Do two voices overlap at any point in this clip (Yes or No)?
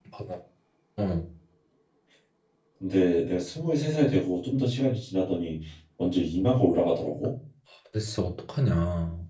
No